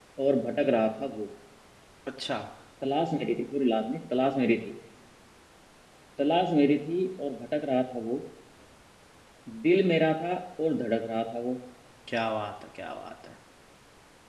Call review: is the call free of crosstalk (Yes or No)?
Yes